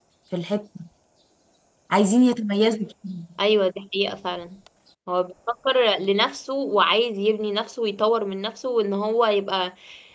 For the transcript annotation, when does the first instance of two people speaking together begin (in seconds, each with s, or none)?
none